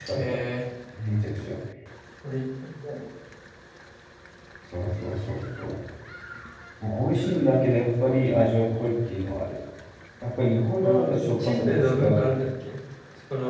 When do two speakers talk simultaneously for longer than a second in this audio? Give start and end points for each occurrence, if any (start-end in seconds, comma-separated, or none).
10.8-12.4